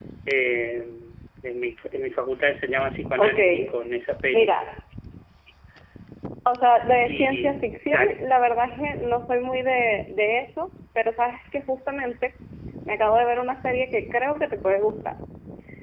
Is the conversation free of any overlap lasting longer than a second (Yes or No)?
No